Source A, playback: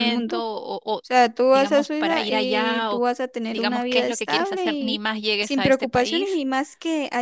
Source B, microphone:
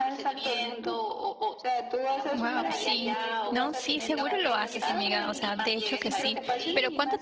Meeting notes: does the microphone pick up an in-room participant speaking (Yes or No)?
Yes